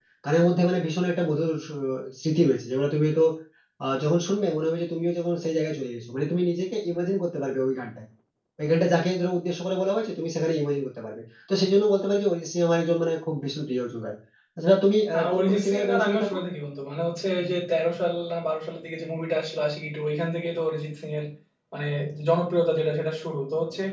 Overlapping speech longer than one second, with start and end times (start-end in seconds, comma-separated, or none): 15.2-16.4